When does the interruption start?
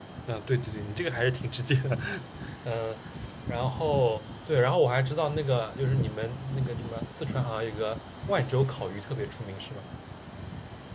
none

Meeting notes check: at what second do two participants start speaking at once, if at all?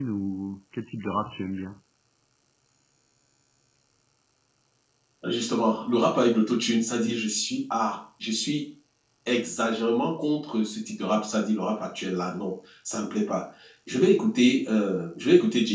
none

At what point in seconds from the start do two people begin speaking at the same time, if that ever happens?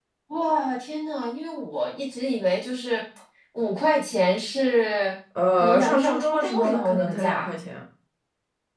5.4 s

